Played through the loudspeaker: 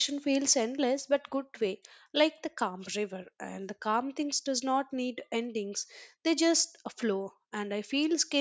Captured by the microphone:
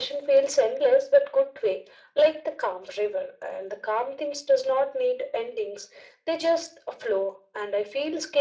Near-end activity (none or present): none